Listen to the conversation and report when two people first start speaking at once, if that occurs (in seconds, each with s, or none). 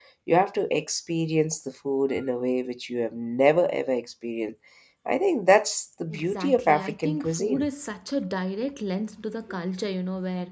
6.1 s